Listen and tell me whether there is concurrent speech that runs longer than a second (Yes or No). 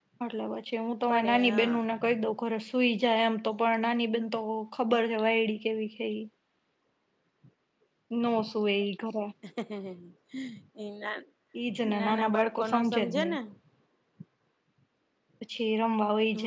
Yes